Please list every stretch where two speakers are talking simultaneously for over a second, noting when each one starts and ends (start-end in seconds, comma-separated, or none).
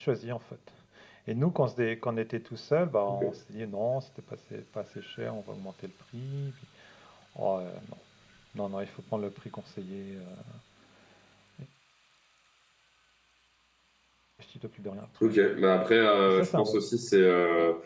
none